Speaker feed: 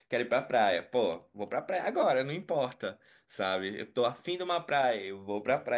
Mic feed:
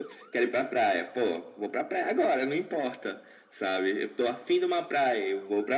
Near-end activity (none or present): none